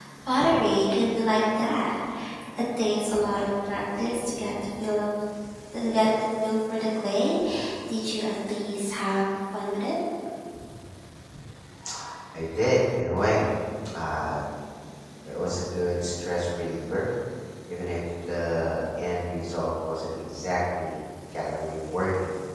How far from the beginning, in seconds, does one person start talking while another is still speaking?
none

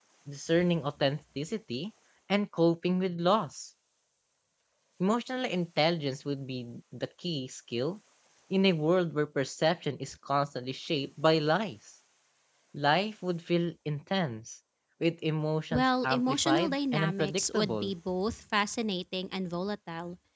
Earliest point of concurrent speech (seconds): 15.7 s

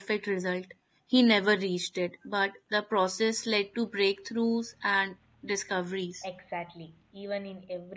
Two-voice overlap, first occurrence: none

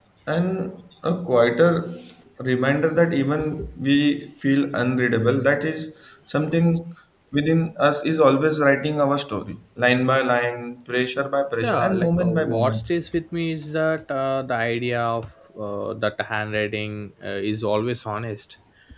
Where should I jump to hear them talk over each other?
11.6 s

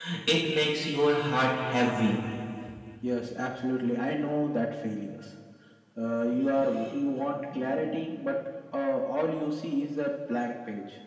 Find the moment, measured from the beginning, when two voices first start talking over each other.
none

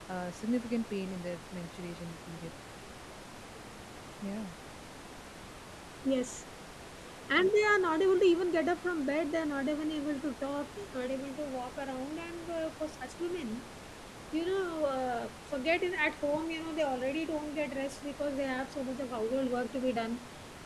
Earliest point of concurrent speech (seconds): none

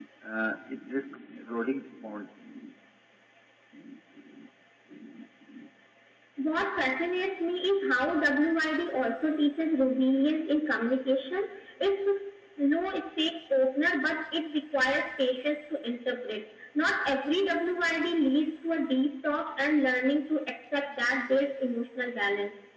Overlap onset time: none

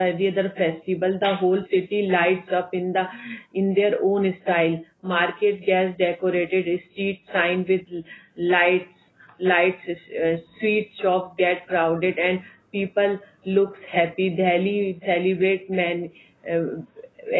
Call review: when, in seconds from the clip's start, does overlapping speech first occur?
none

